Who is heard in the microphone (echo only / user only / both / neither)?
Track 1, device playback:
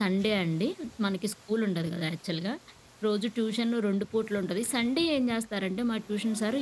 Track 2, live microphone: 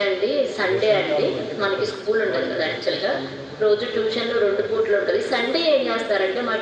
both